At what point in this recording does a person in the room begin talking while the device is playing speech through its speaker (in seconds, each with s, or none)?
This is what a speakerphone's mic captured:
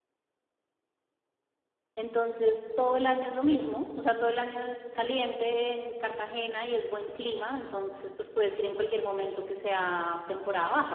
2.0 s